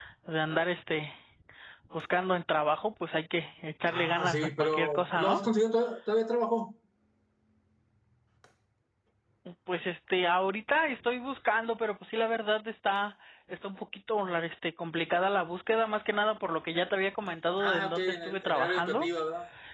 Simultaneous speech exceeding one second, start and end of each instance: 3.9-5.4, 17.6-19.1

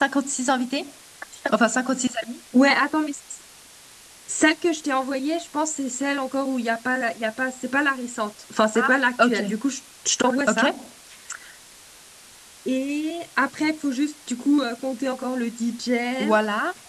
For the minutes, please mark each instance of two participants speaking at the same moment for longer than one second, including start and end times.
none

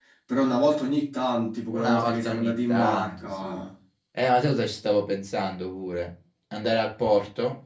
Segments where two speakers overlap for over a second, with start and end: 1.7-3.5

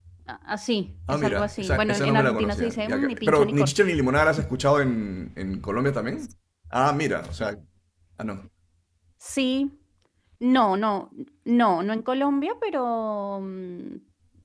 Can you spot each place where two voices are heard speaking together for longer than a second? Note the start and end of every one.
1.1-3.7

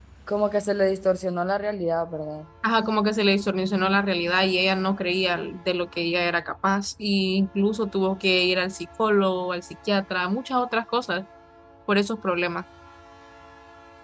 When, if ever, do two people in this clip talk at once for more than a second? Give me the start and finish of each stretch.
none

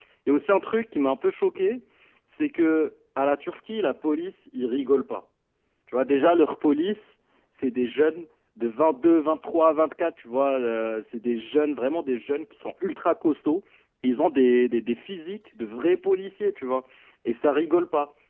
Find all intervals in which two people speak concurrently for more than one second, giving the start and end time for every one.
none

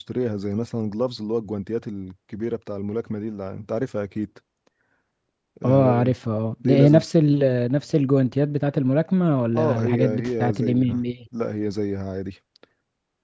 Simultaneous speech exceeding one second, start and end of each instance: 9.6-11.0

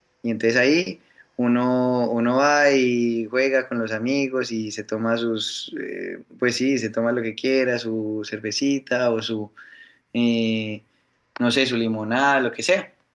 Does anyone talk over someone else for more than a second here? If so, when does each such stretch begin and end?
none

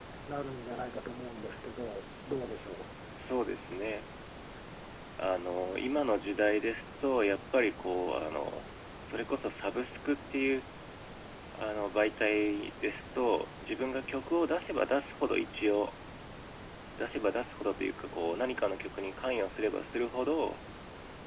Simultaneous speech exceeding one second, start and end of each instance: none

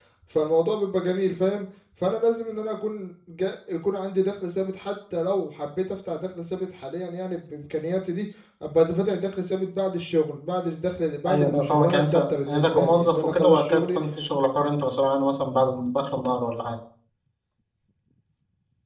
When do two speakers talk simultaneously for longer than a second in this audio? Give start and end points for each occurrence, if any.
11.3-14.0

